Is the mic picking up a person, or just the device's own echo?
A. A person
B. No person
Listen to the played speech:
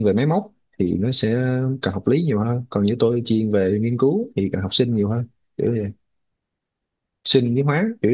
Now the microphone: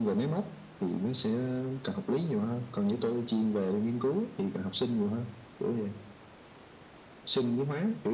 B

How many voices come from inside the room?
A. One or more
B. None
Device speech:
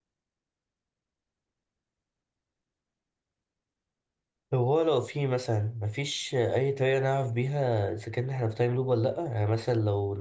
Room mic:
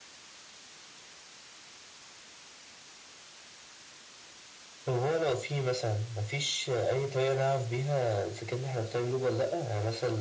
B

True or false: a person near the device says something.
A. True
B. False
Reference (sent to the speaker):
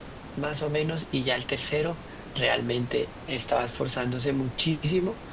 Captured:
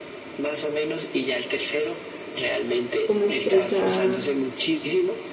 A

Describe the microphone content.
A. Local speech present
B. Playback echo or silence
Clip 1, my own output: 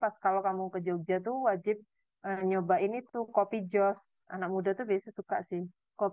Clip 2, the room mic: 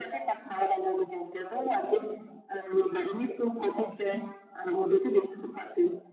B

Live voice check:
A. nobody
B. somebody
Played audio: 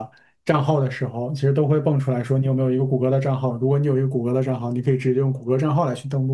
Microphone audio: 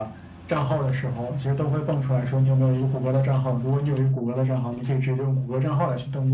A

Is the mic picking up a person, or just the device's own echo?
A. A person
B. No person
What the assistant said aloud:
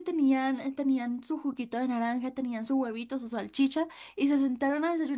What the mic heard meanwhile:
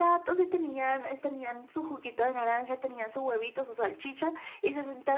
B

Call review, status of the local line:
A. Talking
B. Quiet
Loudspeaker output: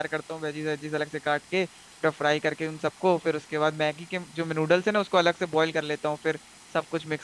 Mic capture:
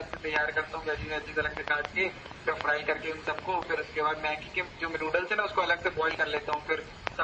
B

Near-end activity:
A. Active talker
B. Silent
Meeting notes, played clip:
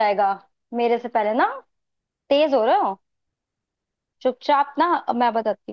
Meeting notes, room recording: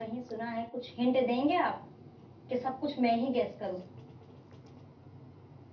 A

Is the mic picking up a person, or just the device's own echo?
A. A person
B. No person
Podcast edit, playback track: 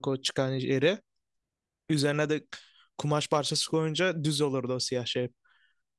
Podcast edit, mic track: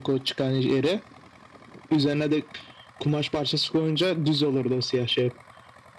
B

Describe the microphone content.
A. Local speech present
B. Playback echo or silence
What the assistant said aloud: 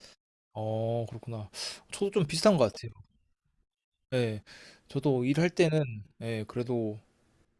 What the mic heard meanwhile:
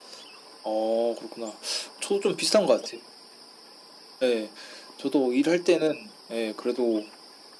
B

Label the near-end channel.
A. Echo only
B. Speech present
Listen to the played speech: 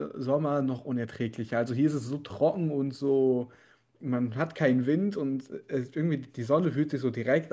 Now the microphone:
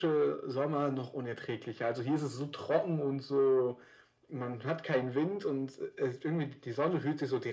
A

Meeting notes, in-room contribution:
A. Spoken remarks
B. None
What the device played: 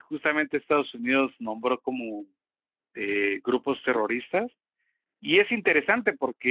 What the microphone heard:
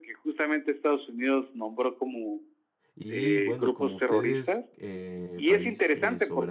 A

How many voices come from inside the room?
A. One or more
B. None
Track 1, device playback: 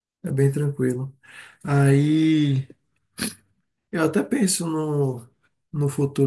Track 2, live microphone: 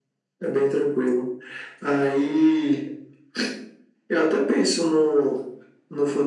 B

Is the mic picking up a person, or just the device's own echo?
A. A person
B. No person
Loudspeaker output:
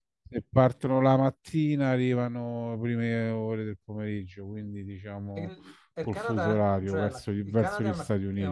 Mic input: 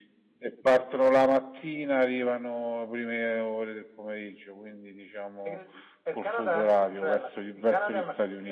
B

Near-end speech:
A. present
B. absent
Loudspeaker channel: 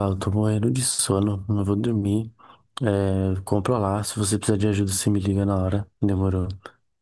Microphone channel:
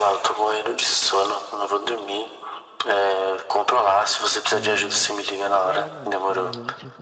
A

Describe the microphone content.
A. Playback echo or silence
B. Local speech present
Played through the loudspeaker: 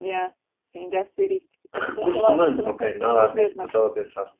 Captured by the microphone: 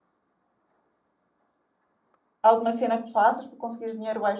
B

